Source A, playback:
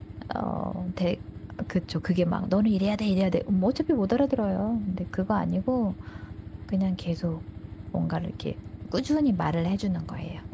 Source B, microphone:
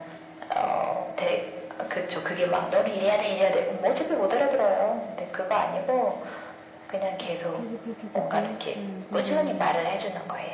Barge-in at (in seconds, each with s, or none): 7.2 s